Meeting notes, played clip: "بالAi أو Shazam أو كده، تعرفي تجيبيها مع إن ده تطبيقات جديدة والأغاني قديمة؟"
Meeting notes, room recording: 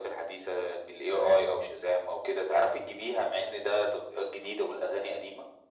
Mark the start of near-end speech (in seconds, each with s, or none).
none